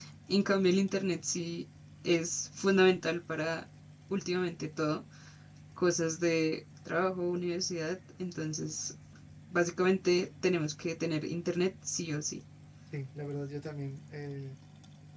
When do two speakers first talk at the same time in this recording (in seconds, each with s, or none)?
none